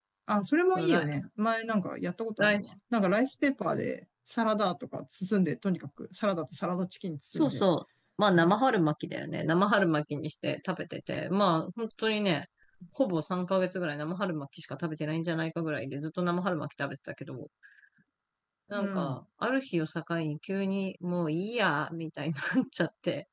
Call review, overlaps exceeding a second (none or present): none